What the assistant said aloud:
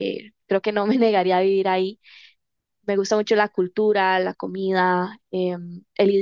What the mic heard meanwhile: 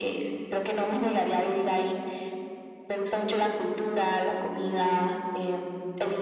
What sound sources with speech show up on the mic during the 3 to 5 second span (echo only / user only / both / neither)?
echo only